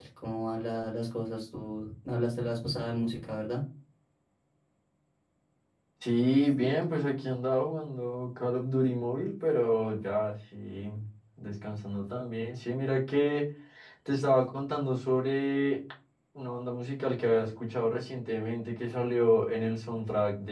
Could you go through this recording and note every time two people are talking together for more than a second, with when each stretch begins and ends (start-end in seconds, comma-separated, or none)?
none